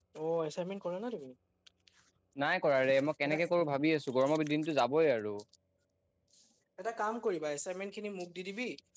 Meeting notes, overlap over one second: none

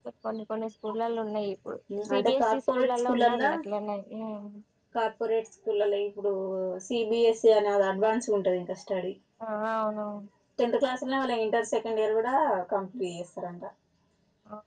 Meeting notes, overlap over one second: present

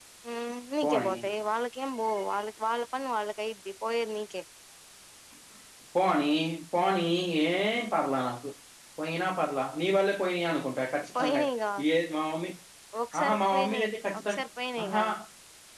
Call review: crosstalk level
present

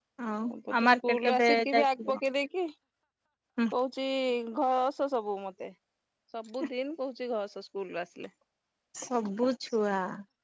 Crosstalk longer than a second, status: present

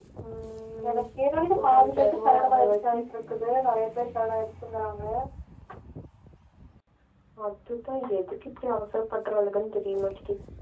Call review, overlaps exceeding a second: present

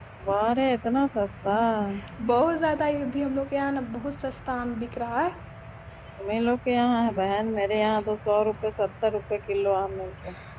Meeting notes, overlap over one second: none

